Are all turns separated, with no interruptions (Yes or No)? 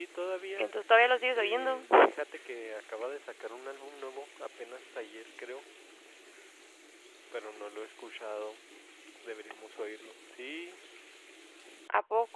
No